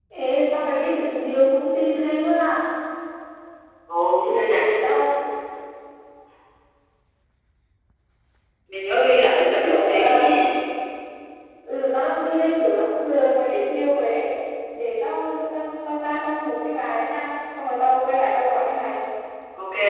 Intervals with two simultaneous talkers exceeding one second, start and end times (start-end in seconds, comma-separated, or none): 8.9-10.3